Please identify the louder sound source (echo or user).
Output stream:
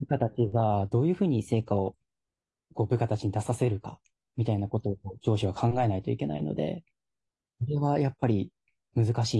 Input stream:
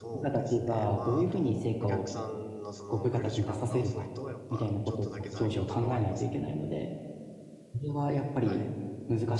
echo